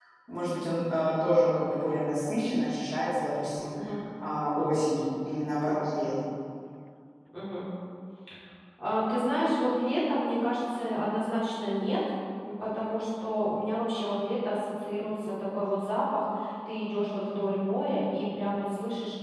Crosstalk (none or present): none